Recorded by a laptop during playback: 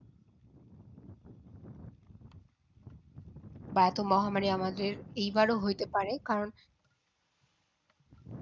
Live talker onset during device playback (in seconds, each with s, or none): 3.7 s